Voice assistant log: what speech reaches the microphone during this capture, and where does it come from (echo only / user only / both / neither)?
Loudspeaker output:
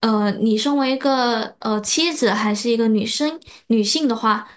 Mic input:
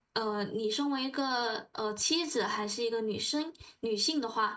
echo only